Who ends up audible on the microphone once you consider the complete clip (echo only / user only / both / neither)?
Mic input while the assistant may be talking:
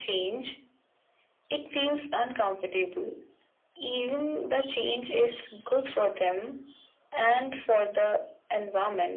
echo only